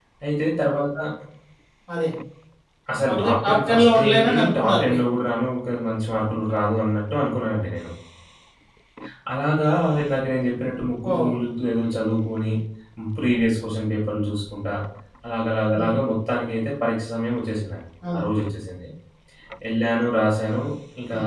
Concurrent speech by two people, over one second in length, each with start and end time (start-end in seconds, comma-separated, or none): 3.1-5.0